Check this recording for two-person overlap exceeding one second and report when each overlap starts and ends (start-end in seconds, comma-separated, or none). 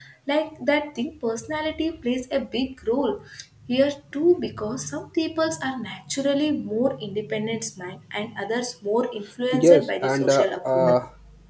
9.5-11.0